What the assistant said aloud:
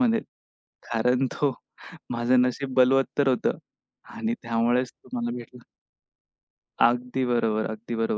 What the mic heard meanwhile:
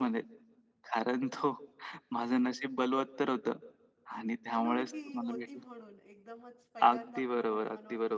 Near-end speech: present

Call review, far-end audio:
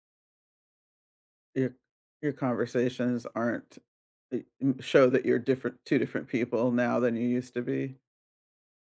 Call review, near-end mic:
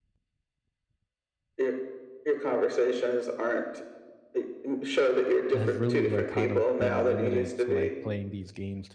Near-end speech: present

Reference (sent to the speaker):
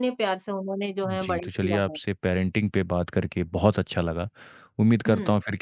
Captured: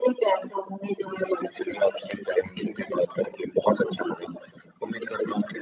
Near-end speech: none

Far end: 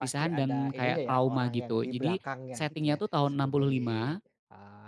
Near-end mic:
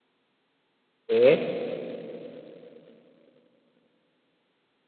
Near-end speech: present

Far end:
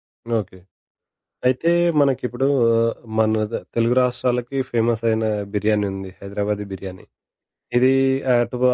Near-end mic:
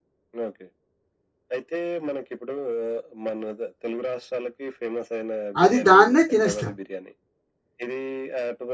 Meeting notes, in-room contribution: present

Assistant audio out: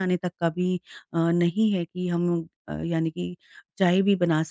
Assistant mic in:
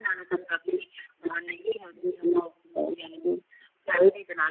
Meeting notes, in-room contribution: none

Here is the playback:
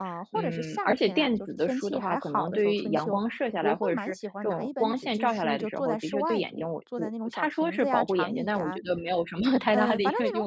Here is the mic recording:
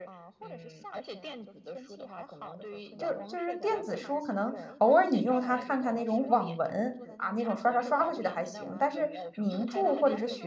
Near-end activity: present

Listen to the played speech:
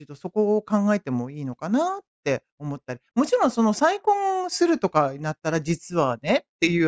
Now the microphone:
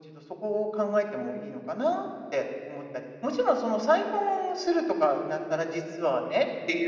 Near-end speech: none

